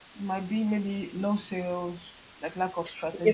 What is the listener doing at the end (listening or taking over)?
taking over